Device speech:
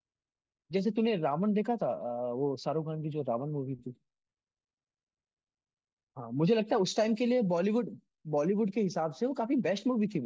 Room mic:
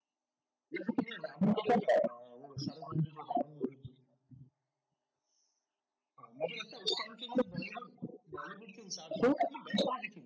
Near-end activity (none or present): none